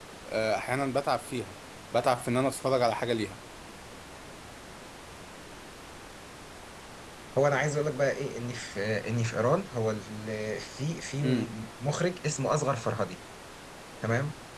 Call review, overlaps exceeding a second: none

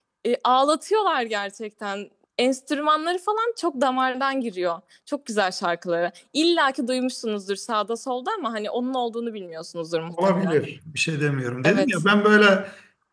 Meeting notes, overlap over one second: none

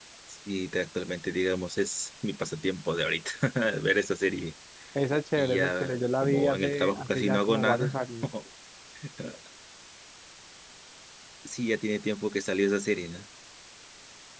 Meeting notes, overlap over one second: present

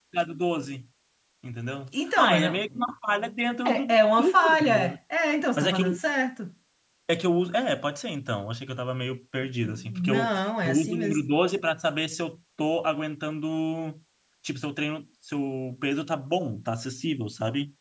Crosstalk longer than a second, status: present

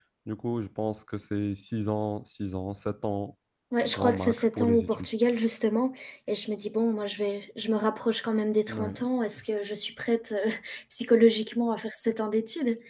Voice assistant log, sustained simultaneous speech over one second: present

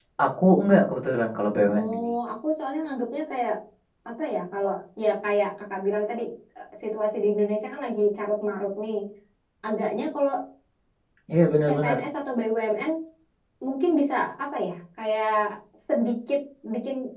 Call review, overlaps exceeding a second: none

